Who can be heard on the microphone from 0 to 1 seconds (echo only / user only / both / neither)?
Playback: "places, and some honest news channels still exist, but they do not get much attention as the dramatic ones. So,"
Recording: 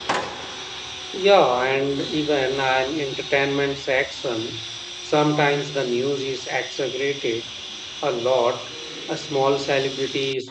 neither